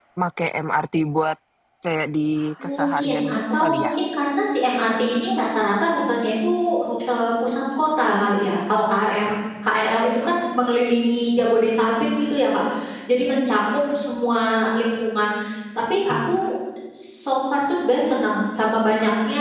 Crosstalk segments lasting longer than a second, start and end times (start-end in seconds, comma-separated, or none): 2.7-3.9